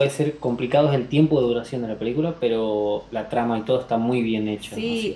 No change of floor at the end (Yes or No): No